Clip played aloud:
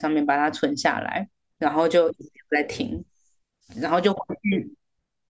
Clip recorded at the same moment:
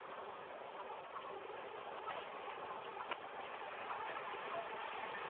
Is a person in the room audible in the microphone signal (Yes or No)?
No